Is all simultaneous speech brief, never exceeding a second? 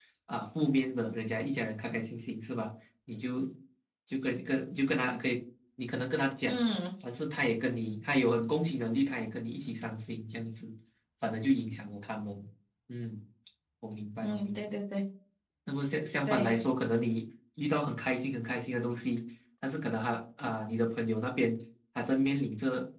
Yes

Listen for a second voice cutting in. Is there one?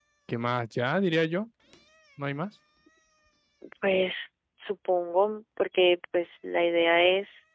No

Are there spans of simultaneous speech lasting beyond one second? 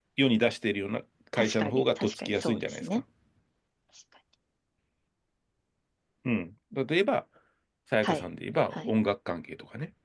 Yes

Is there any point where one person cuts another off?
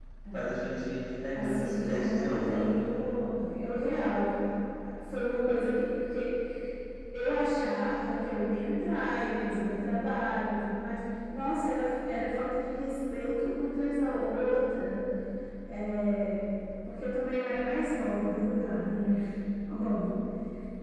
Yes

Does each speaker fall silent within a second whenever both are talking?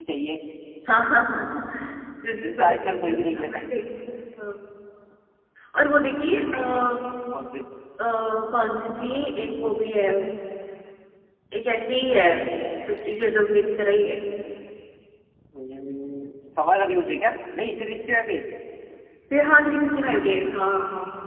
No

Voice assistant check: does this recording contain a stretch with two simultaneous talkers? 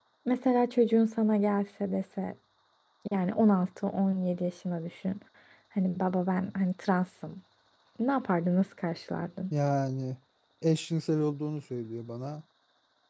No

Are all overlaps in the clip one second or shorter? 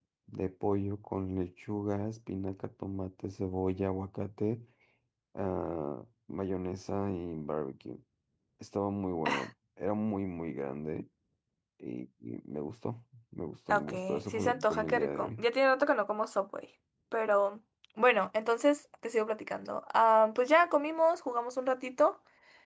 No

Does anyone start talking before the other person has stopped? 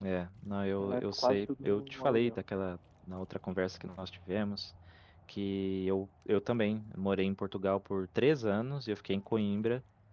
Yes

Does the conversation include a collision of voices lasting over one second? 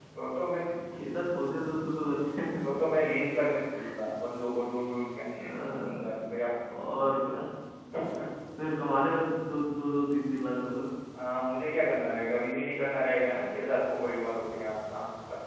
No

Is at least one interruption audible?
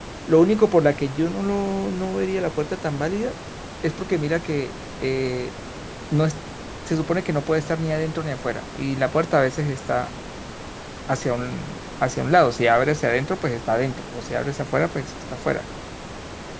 No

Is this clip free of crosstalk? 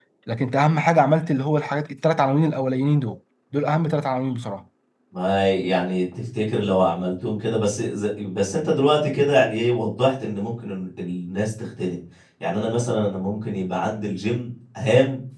Yes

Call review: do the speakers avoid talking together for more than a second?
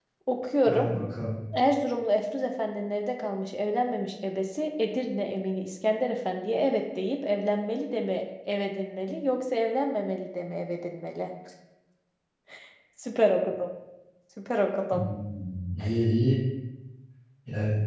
Yes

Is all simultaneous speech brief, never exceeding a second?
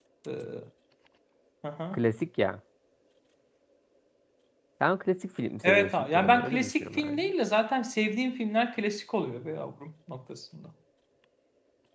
No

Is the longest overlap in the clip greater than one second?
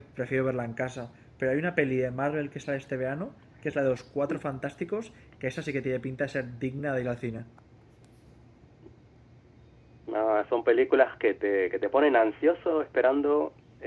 No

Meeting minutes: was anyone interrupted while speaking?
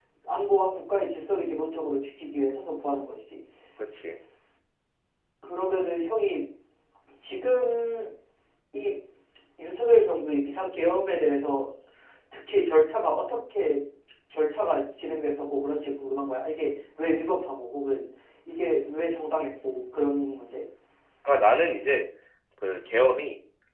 No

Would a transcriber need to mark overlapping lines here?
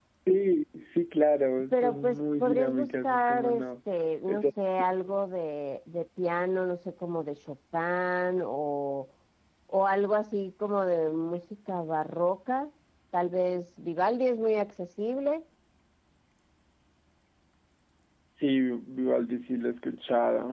Yes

